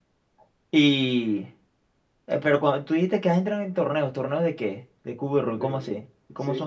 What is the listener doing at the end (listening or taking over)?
taking over